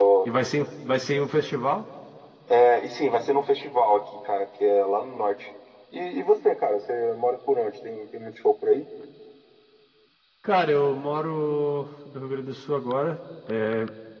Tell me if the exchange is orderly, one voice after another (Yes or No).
Yes